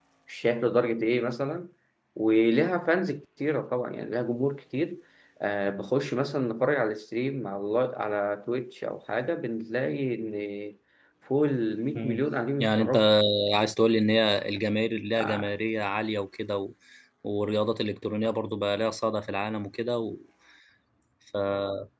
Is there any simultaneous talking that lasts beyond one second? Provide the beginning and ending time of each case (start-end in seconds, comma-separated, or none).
none